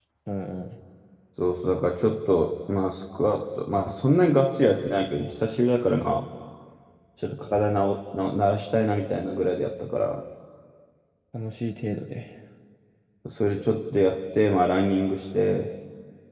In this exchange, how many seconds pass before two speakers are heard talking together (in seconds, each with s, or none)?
none